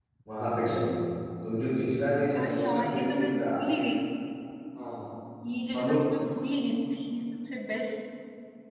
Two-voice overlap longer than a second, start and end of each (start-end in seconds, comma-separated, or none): 2.4-3.8